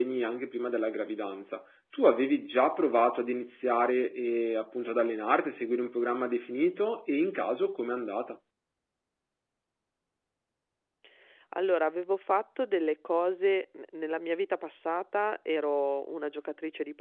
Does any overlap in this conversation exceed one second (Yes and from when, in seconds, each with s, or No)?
No